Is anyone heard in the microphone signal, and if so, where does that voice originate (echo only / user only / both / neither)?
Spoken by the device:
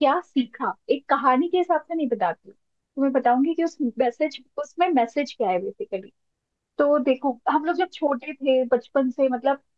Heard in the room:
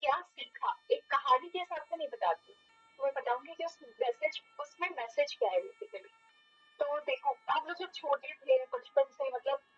echo only